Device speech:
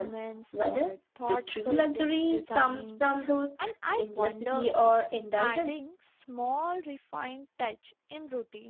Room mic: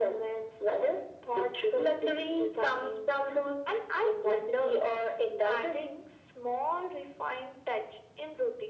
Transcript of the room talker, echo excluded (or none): none